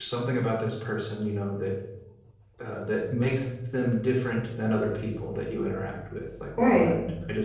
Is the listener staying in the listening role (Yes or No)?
Yes